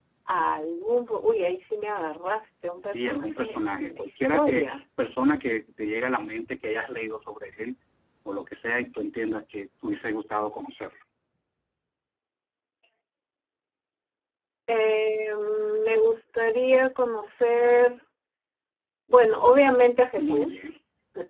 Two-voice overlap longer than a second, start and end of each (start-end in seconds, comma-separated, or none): 2.9-4.8